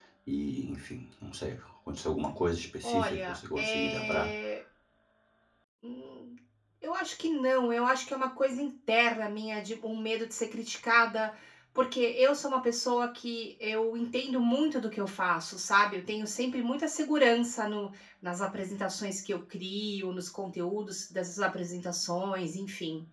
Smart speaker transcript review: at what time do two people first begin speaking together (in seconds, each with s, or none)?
2.8 s